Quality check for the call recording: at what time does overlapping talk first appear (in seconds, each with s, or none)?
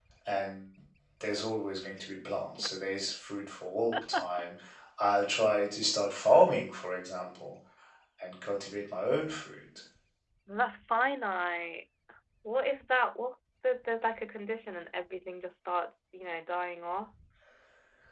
none